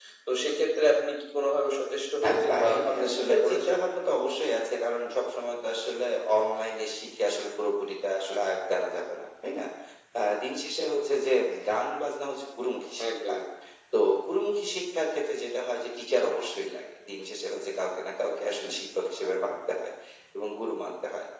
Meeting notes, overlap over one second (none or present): present